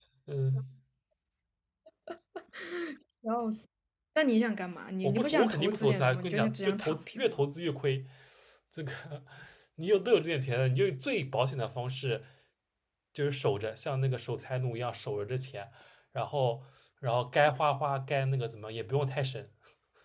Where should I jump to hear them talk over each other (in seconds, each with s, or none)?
5.0 s